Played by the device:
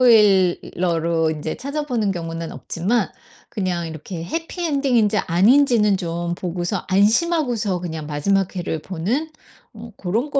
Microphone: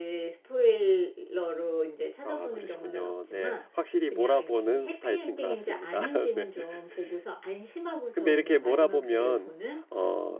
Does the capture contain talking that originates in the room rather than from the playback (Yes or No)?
Yes